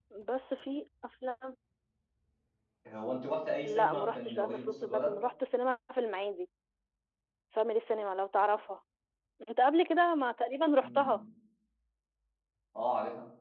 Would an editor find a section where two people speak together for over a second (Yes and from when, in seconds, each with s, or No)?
Yes, from 3.6 s